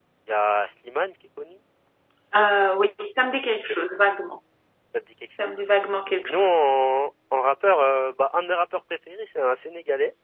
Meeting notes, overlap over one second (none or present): none